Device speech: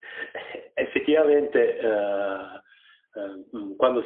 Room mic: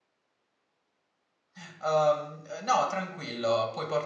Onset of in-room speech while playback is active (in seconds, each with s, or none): 1.6 s